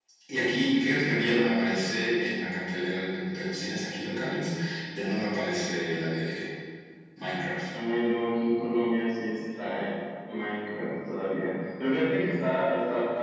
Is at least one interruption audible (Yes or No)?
No